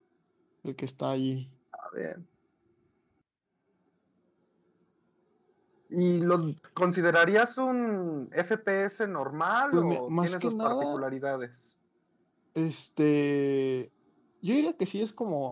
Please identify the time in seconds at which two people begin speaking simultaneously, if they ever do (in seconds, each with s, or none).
9.7 s